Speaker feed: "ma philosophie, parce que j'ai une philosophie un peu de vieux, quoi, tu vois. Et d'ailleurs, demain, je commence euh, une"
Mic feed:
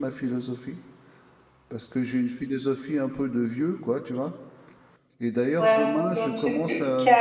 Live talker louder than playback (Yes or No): Yes